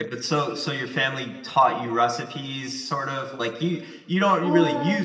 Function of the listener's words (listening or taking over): listening